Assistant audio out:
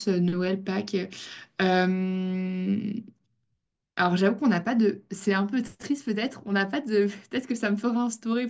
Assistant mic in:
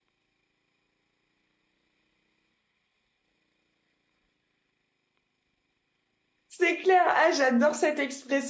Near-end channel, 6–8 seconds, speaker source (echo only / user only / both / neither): user only